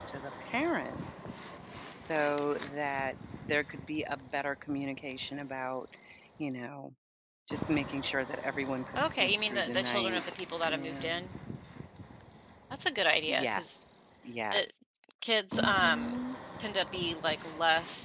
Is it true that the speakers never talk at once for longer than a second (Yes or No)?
No